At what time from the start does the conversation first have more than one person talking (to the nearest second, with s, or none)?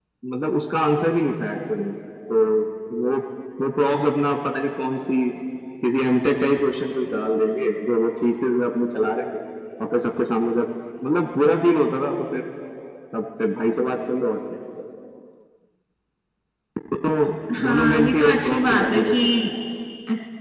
18 s